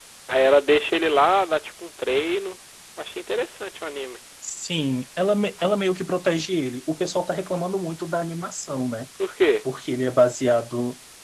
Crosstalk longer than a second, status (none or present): none